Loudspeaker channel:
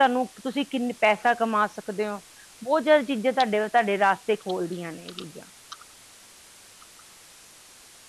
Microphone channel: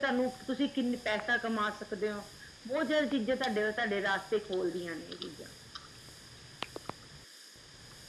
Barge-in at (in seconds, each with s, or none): none